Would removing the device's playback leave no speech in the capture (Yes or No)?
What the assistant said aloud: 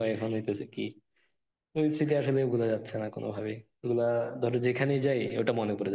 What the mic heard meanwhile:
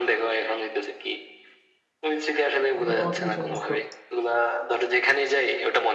No